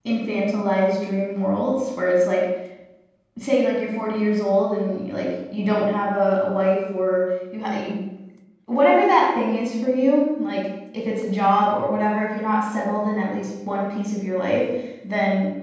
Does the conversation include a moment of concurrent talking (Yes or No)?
No